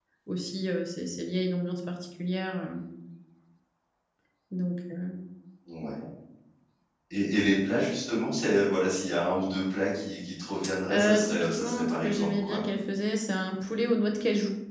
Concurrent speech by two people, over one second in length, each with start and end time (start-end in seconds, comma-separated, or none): 10.9-12.6